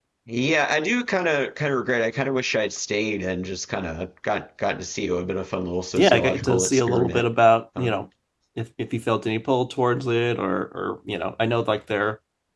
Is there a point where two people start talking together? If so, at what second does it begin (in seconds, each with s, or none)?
6.0 s